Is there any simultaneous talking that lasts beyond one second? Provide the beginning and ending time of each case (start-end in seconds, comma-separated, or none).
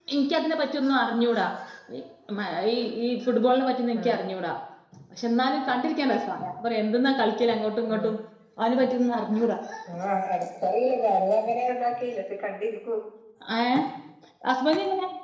none